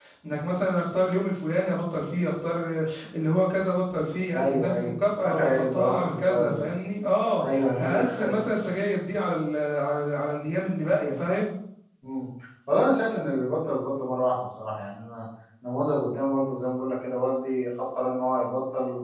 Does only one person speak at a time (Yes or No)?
No